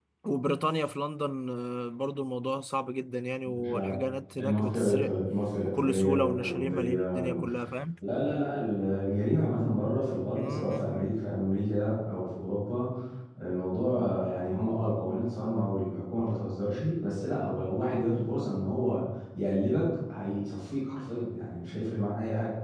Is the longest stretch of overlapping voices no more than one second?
No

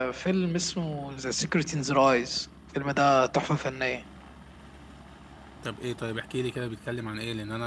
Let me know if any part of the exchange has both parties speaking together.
No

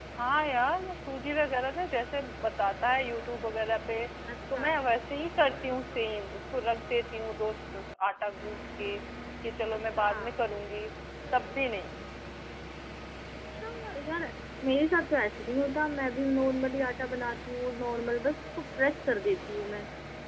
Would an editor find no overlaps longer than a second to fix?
Yes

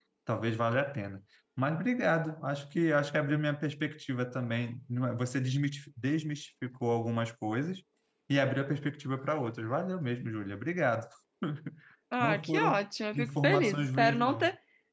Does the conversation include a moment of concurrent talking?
Yes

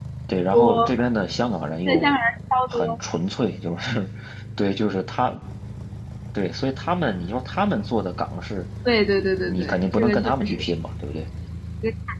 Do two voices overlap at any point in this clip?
Yes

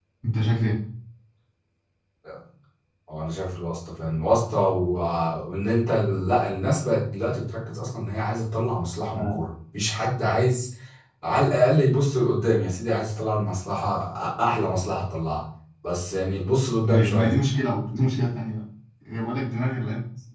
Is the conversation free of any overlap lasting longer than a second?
Yes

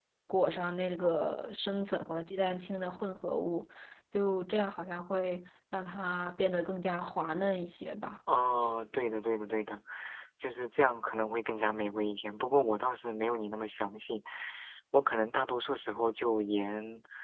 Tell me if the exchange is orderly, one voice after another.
Yes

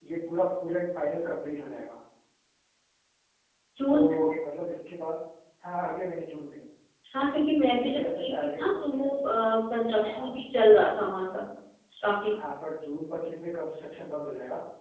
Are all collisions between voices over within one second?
No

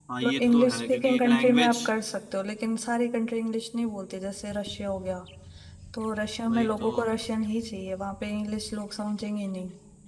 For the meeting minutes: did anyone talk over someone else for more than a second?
Yes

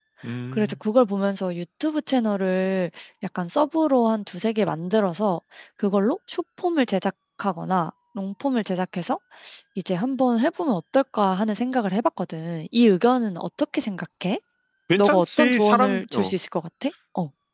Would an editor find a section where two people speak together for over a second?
Yes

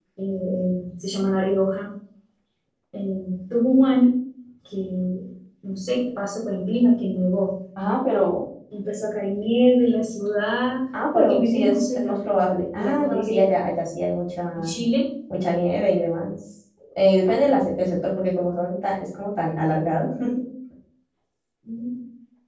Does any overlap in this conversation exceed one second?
Yes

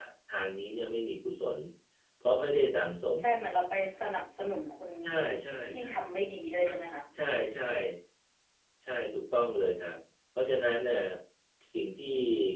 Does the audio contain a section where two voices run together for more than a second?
No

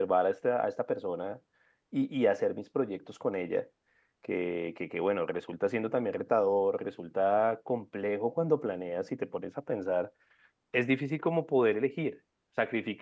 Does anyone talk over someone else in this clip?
No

